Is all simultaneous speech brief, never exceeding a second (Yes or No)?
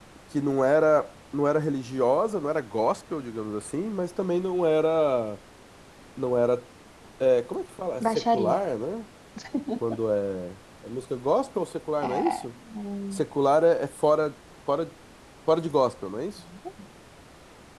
Yes